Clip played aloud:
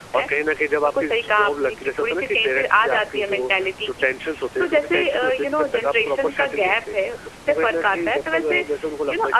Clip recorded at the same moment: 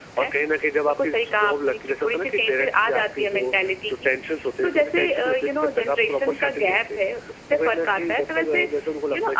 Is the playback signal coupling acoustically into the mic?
Yes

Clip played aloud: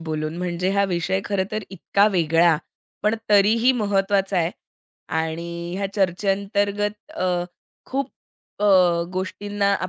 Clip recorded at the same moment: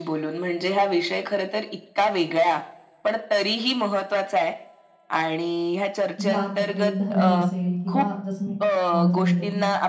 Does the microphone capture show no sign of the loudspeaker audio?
No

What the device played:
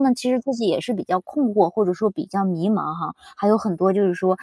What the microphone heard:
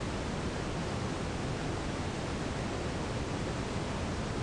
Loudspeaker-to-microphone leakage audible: No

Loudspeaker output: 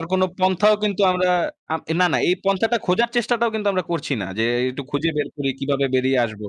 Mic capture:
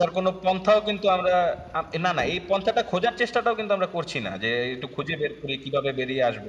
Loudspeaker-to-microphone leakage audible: Yes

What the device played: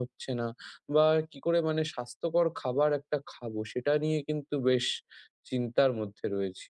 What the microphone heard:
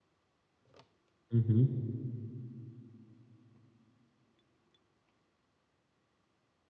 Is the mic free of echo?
Yes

